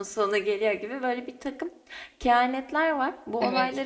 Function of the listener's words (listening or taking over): listening